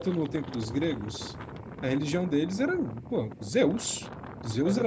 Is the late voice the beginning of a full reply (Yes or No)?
No